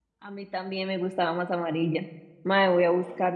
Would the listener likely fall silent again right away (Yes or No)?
Yes